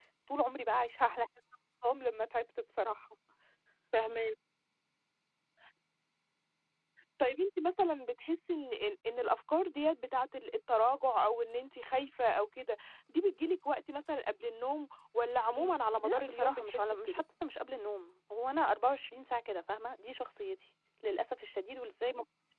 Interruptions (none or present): present